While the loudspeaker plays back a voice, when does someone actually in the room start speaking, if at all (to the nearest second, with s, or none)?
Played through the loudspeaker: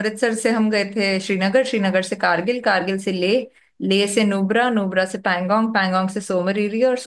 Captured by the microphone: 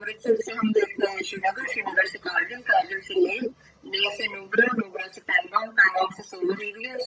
none